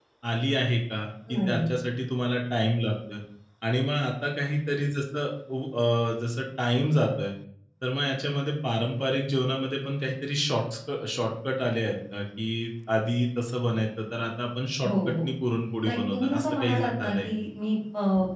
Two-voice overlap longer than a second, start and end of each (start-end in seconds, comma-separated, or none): 15.8-17.3